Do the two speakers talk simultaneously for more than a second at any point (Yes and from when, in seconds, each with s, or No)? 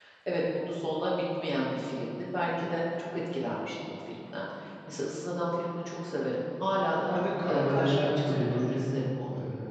Yes, from 7.1 s